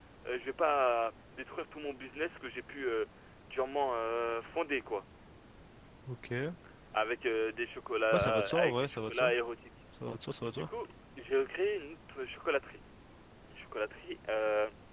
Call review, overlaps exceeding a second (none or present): present